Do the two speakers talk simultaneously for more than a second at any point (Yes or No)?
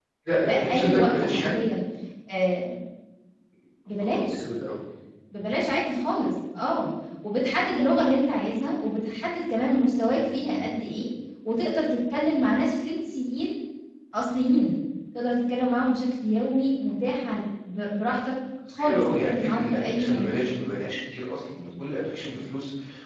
Yes